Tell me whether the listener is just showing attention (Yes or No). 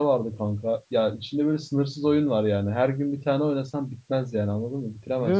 Yes